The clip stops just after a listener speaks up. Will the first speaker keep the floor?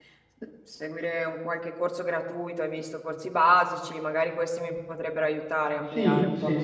No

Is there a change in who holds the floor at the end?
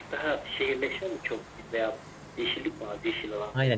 Yes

